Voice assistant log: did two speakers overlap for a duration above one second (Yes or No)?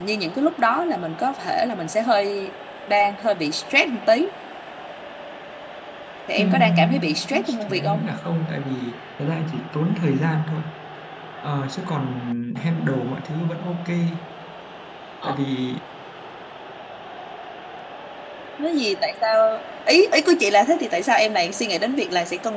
Yes